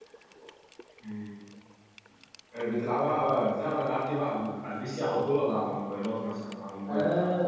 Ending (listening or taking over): taking over